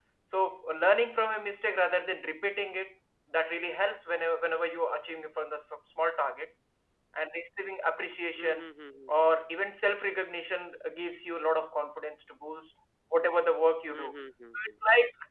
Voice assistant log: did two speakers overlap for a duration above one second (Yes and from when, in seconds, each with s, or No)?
No